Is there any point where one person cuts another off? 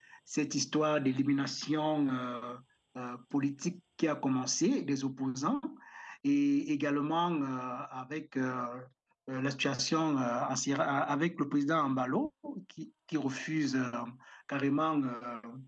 No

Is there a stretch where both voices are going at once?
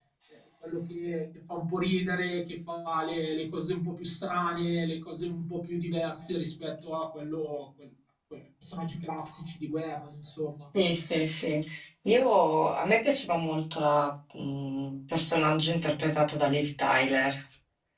No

